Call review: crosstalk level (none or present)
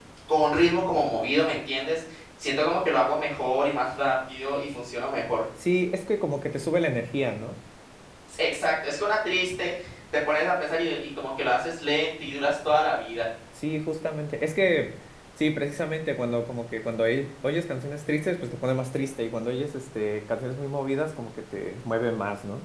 none